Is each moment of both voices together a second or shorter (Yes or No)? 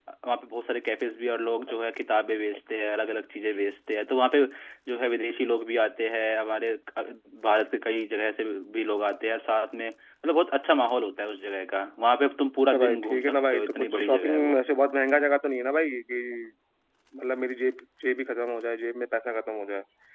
No